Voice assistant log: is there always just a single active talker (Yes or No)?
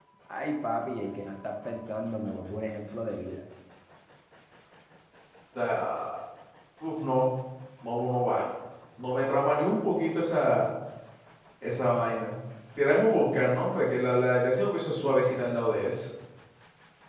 Yes